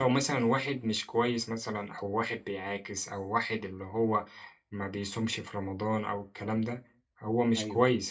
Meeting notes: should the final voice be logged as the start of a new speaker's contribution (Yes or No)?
No